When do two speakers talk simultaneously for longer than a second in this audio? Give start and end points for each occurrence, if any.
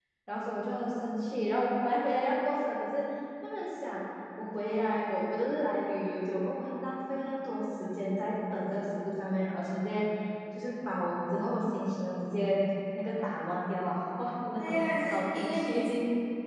14.6-15.9

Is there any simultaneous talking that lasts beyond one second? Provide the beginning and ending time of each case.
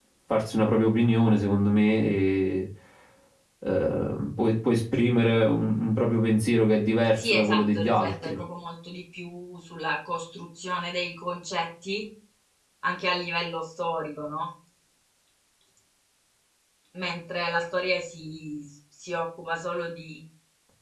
7.2-8.4

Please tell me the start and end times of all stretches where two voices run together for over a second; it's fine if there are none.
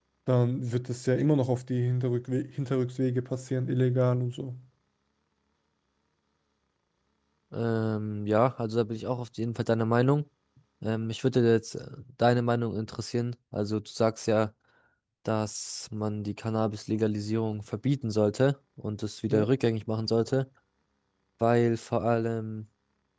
none

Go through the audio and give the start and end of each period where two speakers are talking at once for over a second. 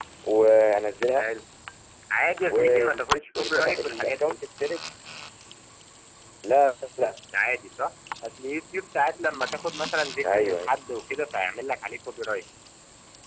2.5-4.4

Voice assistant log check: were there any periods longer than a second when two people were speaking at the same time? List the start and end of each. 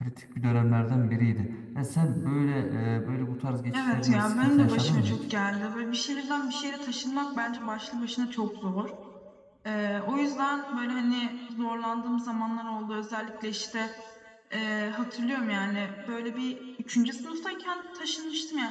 3.7-5.2

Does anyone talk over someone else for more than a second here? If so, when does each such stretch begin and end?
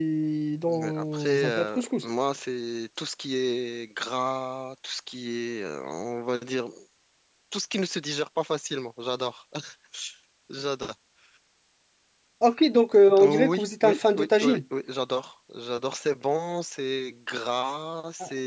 0.7-2.0, 13.2-14.6

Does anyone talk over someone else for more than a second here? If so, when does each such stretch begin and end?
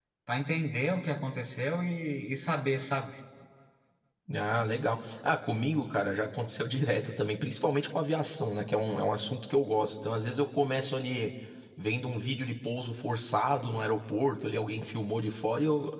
none

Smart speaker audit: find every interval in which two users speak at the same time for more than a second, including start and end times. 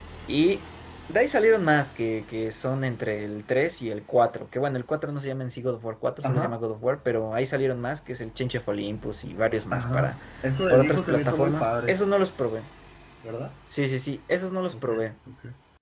10.7-12.0

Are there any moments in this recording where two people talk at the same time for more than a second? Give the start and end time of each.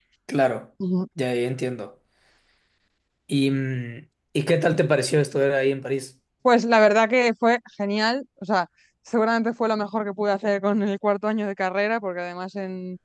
none

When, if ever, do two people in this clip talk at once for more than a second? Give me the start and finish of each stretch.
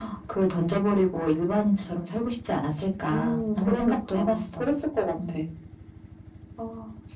3.1-4.7

